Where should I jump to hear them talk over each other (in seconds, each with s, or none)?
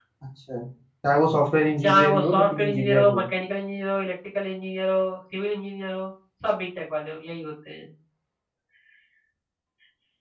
1.8 s